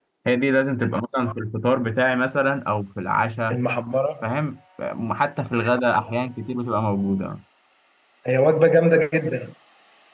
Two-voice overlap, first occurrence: none

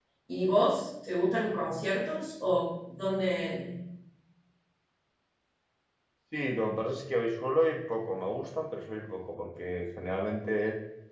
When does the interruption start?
none

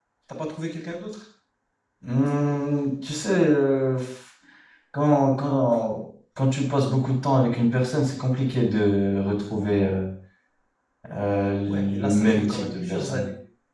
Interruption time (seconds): 11.7 s

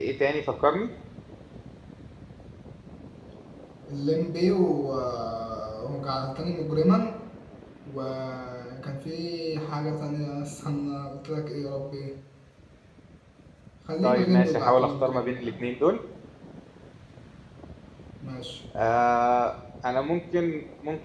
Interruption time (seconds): 14.0 s

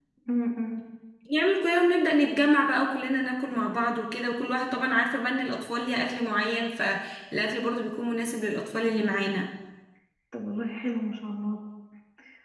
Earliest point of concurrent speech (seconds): none

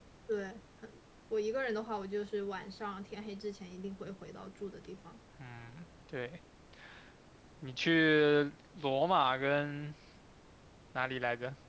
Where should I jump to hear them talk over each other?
none

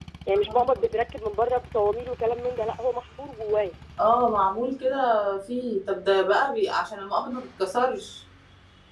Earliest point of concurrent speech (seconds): none

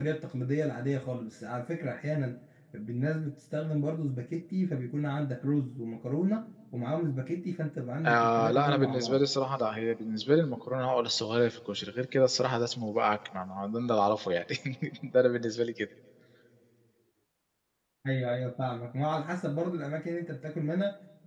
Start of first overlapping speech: 8.0 s

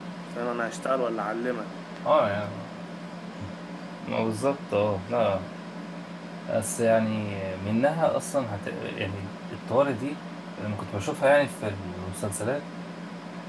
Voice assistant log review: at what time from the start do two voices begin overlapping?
none

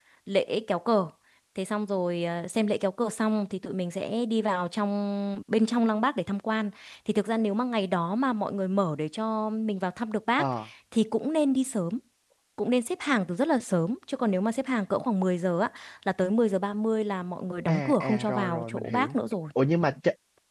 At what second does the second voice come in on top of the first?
17.7 s

